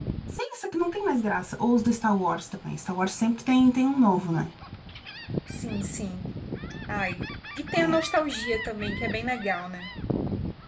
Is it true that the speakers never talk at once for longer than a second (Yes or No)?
Yes